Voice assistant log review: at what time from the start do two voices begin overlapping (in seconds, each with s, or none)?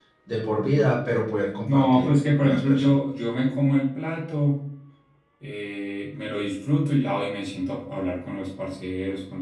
1.7 s